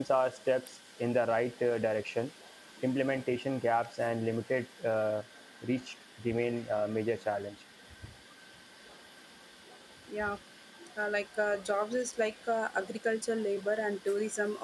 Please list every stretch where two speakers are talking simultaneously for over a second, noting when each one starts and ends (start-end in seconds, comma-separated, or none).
none